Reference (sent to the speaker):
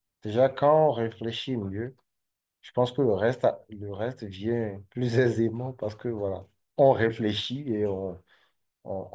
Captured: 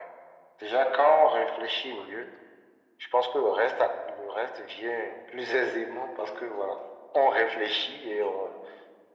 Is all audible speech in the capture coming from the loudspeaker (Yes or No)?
Yes